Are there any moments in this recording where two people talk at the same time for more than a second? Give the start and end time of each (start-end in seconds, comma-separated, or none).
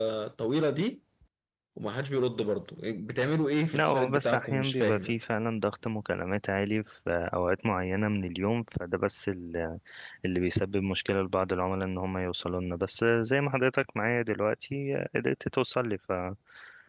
3.7-5.2